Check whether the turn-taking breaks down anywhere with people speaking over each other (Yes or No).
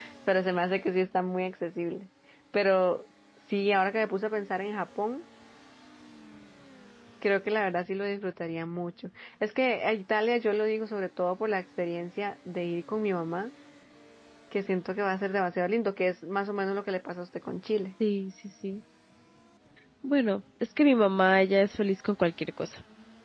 No